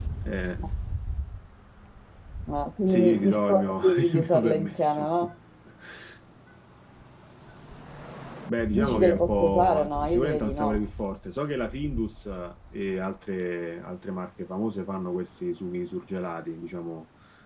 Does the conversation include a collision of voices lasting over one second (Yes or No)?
Yes